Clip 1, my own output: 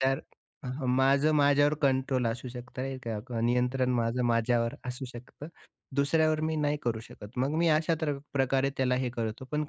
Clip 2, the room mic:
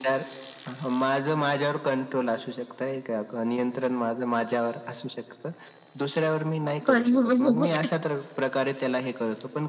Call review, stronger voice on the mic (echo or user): user